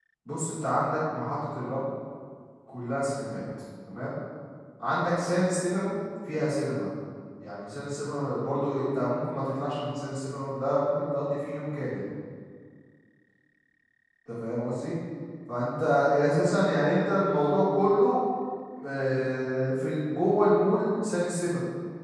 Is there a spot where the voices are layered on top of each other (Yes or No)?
No